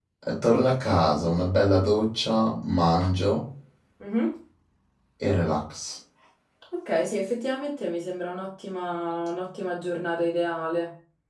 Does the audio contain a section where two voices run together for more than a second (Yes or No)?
No